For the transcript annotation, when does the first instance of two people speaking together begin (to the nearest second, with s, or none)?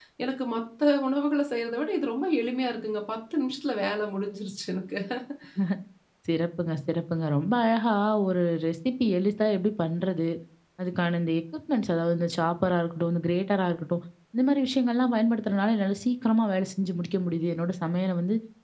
none